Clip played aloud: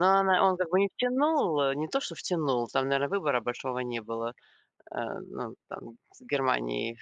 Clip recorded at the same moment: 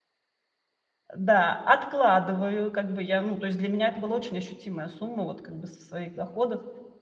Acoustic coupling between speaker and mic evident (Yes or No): No